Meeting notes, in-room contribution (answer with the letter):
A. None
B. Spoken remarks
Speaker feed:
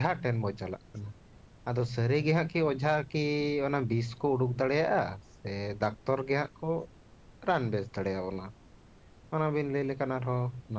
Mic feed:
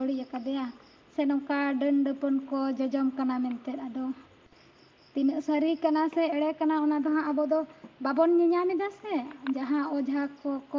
B